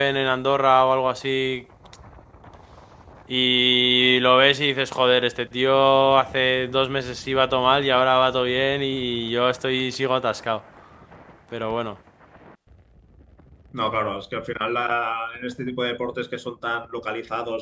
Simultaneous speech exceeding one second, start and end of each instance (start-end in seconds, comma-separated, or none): none